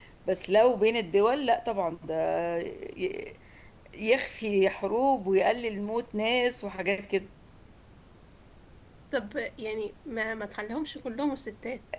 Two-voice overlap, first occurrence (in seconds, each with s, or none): none